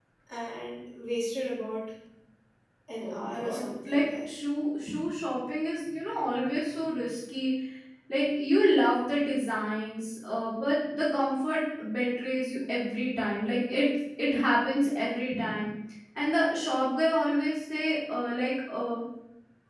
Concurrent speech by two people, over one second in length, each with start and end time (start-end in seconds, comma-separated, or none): 3.0-4.3